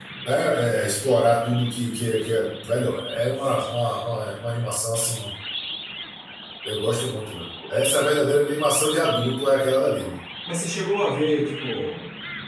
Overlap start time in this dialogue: none

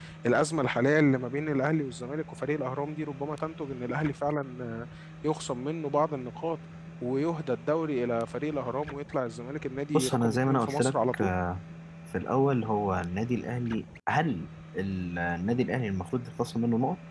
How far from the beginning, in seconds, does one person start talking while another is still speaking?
10 s

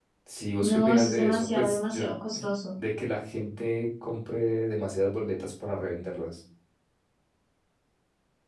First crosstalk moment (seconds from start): 1 s

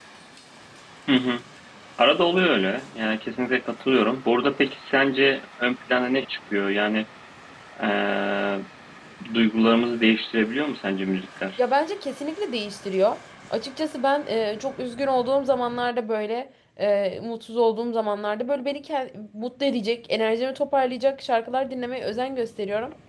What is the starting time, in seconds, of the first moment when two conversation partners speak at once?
none

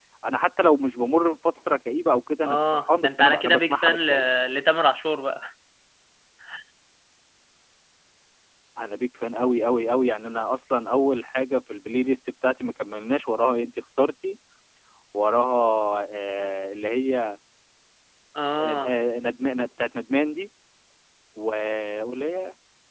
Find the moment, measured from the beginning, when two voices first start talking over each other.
2 s

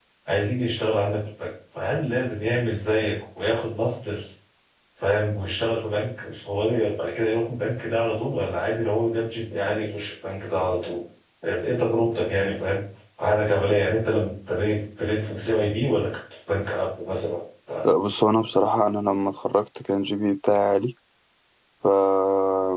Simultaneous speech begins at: none

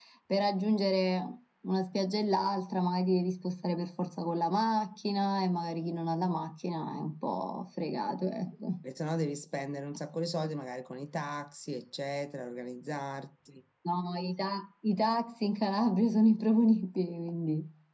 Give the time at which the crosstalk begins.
none

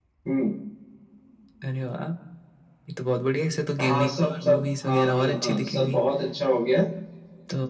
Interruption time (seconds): 4 s

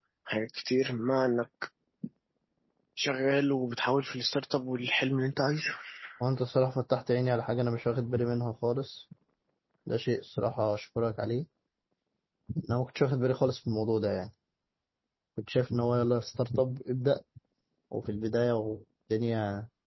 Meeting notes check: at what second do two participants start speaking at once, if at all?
none

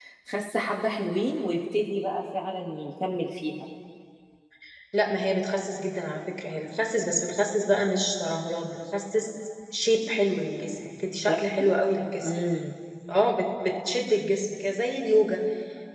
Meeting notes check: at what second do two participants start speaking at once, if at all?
none

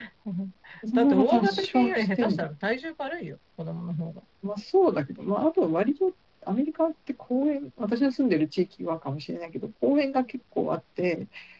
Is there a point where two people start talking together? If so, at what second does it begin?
1 s

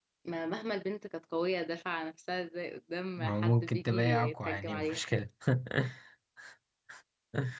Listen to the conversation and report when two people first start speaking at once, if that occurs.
3 s

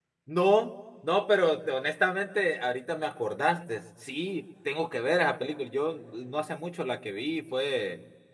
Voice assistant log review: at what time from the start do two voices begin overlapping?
none

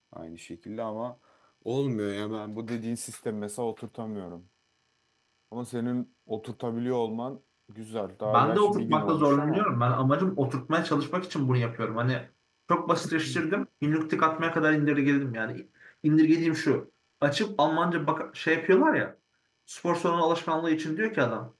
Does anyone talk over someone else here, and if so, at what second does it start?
8 s

